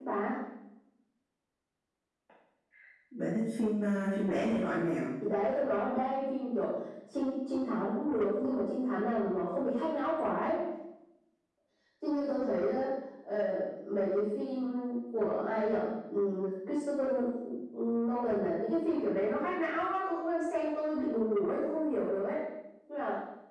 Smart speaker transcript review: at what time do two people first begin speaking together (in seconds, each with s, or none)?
none